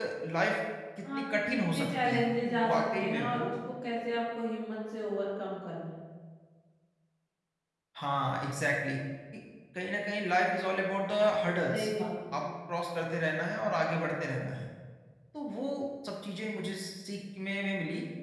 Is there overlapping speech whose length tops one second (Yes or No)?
Yes